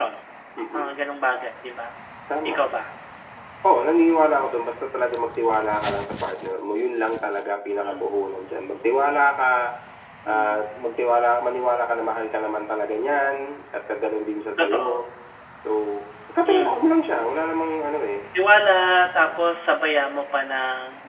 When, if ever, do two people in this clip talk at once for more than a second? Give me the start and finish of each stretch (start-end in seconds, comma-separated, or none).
none